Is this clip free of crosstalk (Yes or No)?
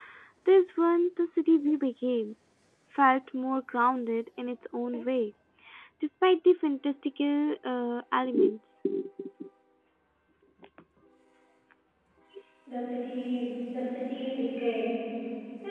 Yes